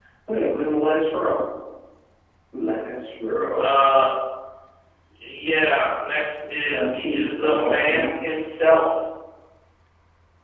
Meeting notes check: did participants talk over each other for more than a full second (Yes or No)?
Yes